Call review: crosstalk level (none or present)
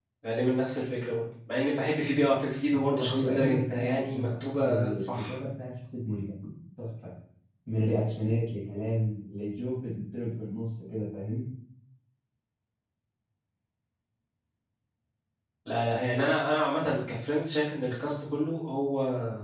present